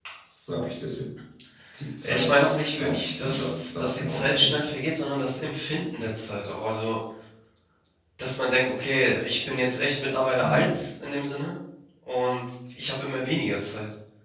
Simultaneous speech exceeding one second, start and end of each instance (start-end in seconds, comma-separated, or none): 2.0-4.6